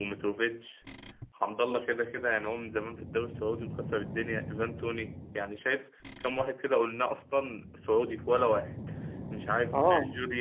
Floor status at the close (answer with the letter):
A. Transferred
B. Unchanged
B